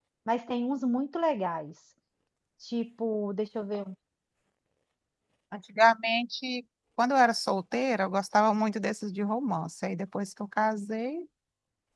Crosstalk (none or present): none